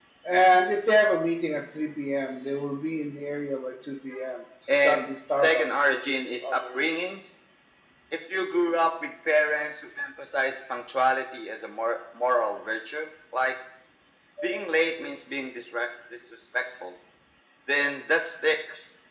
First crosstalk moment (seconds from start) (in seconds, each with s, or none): 4.7 s